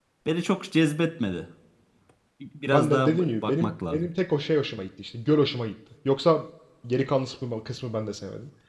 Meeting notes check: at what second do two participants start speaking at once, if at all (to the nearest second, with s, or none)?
3 s